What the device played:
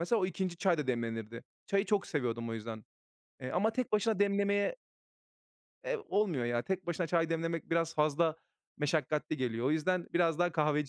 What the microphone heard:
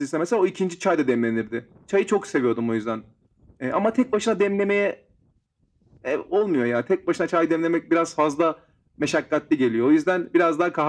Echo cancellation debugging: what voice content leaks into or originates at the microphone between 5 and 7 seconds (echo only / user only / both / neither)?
echo only